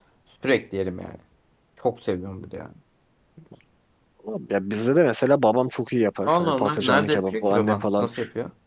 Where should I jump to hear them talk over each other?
6.3 s

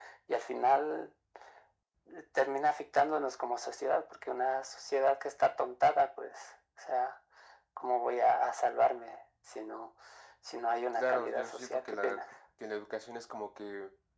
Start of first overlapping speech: 10.9 s

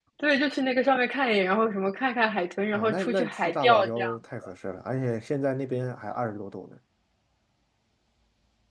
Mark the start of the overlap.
2.7 s

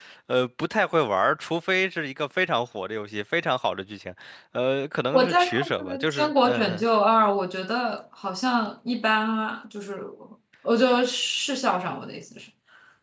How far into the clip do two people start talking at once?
5.1 s

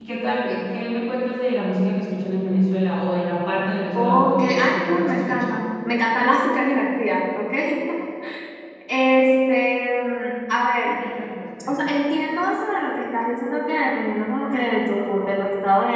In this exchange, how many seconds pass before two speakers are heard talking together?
3.9 s

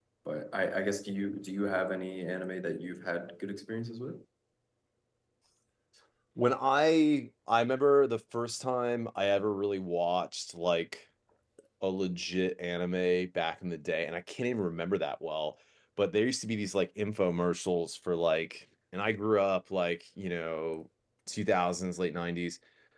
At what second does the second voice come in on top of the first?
none

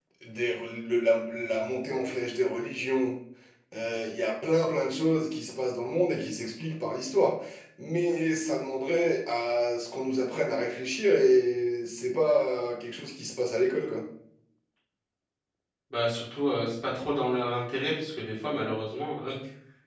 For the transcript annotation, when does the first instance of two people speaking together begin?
none

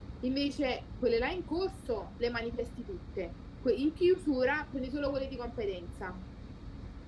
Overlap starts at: none

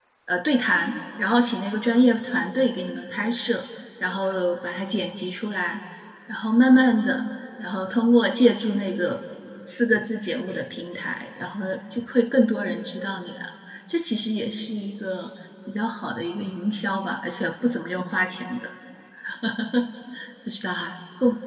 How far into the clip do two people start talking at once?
none

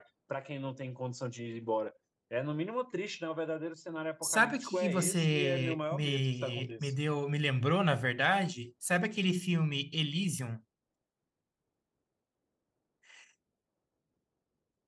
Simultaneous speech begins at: 4.2 s

